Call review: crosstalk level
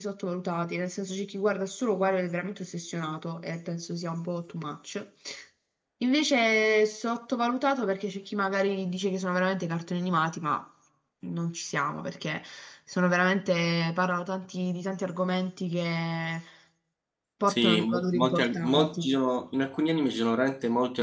present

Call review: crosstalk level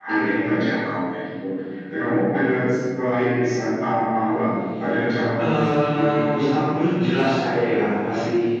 present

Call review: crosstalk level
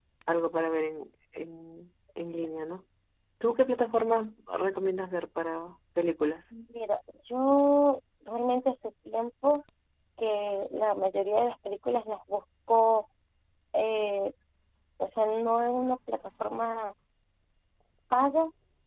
none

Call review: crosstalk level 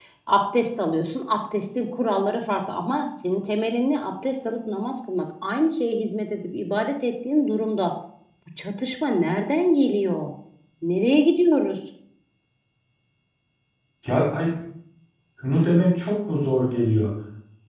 none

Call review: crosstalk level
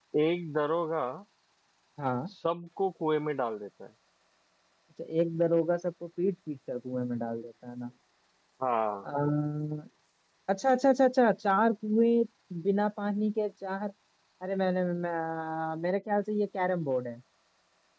none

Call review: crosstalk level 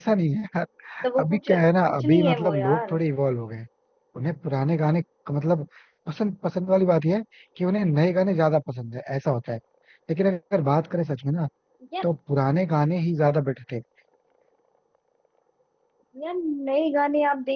present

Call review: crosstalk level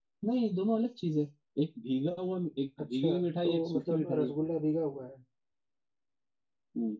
present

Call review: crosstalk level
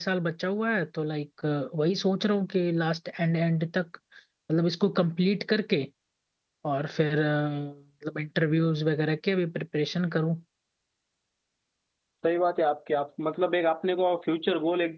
none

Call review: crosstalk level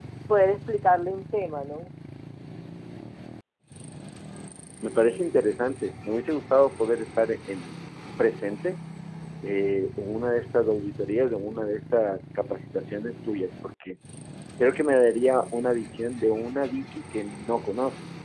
none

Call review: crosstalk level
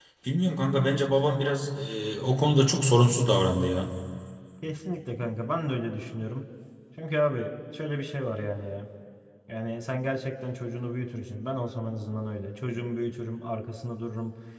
none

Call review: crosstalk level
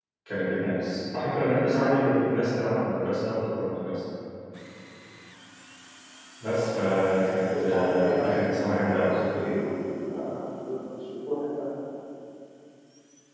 present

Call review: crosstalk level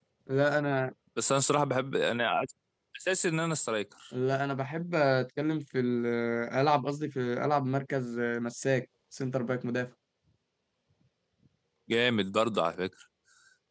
none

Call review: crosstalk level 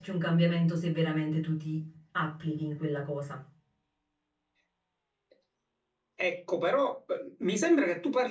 none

